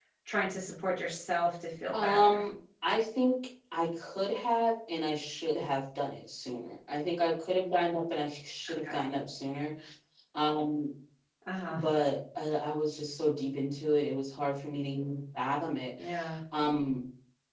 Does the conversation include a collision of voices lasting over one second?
No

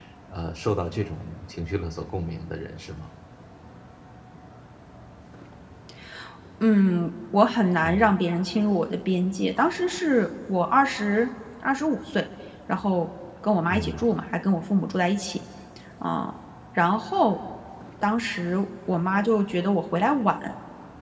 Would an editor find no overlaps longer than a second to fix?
Yes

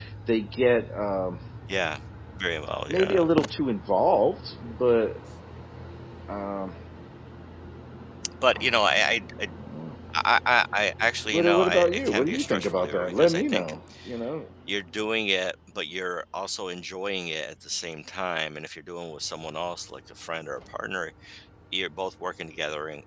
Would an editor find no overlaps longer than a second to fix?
No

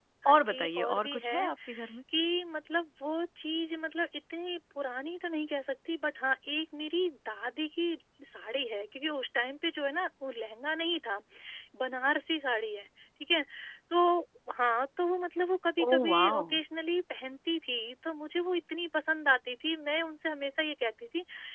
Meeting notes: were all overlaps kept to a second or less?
No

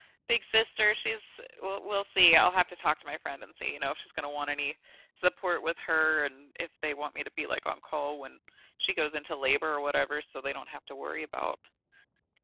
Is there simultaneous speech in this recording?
No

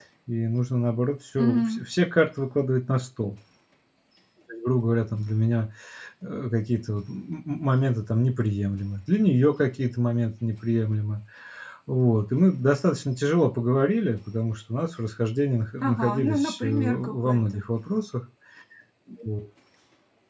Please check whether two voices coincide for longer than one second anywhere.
Yes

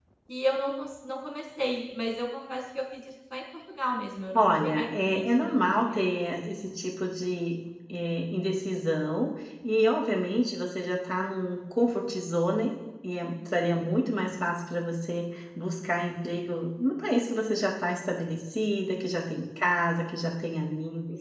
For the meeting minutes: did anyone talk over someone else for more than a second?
Yes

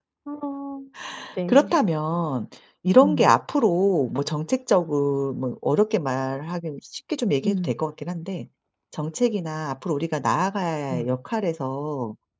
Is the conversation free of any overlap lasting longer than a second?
Yes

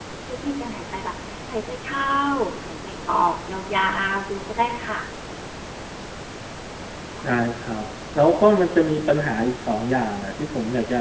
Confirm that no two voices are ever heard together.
Yes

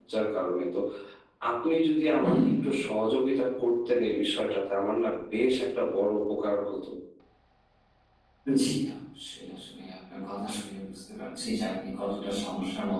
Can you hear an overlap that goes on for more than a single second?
No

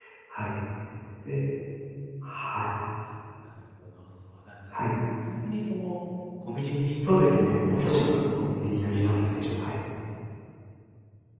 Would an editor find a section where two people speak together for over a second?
Yes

